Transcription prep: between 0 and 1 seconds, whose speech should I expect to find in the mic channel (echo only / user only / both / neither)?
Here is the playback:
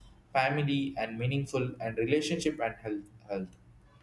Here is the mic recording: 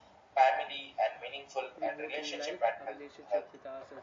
echo only